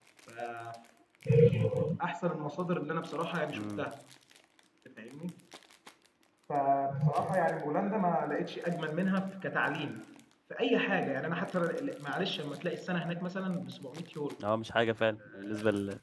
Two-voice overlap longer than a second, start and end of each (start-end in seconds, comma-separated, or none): none